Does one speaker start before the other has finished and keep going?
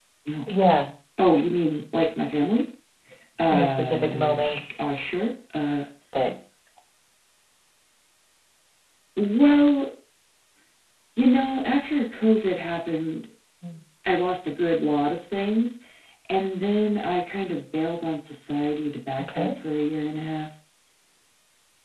Yes, from 3.5 s

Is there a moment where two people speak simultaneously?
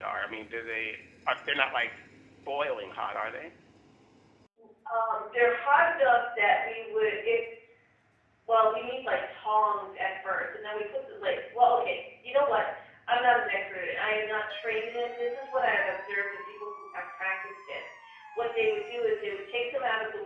No

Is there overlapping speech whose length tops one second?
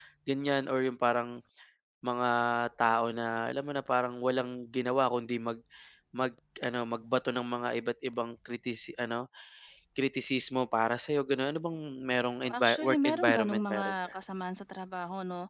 Yes, from 12.4 s

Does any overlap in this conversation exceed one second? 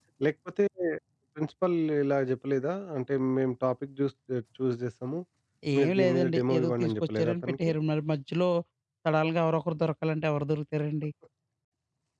Yes, from 5.8 s

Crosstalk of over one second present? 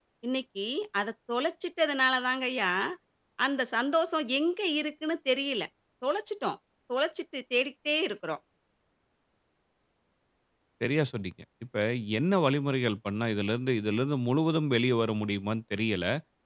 No

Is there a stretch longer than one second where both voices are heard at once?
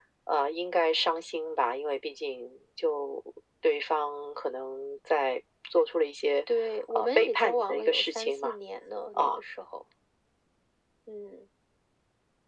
Yes, from 6.9 s

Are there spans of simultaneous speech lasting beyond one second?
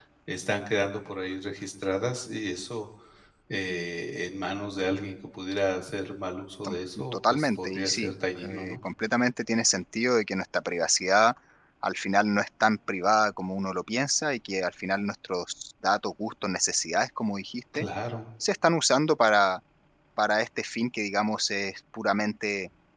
Yes, from 6.6 s

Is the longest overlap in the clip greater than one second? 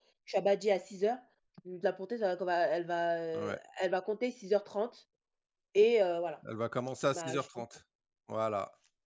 No

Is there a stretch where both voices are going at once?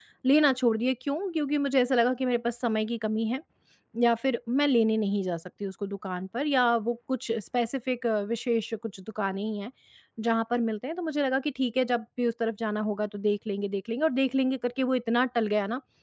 No

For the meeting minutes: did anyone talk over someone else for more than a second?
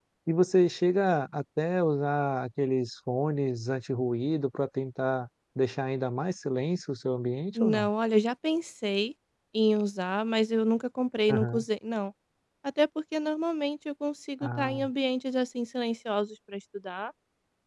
No

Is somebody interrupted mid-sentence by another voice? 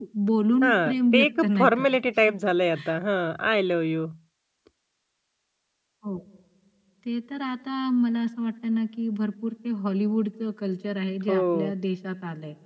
Yes, from 0.6 s

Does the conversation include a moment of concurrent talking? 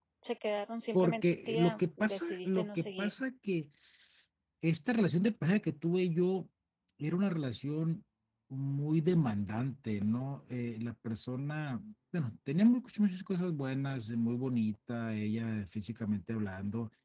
Yes, from 0.9 s

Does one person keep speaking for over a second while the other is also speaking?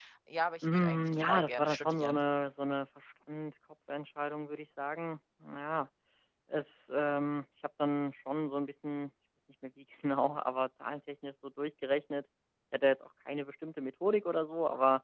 Yes, from 0.6 s

